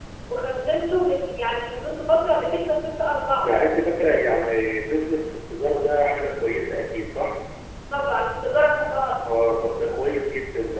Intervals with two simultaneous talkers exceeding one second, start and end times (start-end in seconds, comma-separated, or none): none